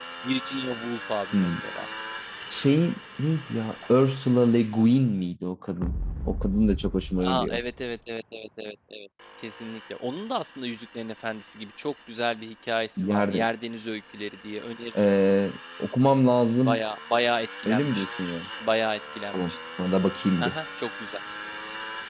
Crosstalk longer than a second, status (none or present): none